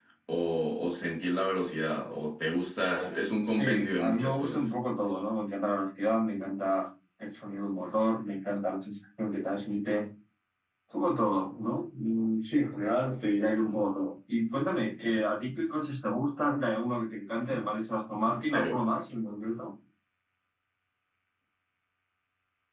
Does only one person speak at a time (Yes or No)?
No